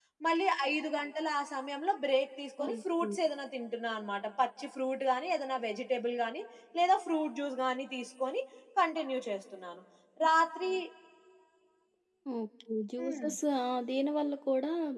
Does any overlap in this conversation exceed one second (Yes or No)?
No